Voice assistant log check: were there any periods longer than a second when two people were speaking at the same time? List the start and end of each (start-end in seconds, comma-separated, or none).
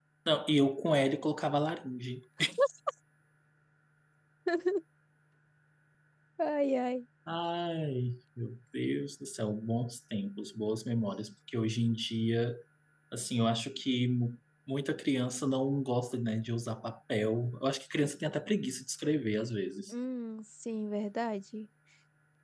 none